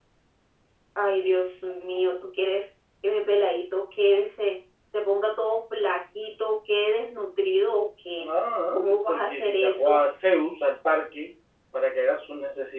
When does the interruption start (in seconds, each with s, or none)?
8.8 s